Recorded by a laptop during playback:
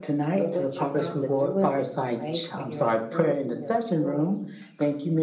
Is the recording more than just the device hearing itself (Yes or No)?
No